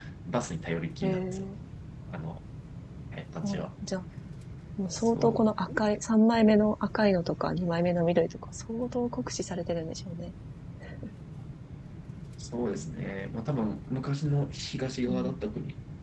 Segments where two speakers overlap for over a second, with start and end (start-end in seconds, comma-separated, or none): none